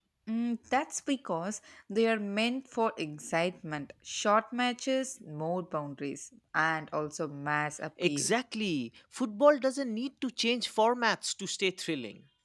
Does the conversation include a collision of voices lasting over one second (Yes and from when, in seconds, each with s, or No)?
No